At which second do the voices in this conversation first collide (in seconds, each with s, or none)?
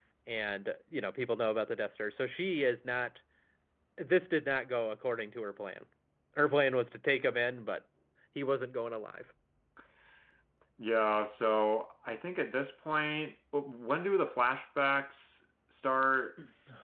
none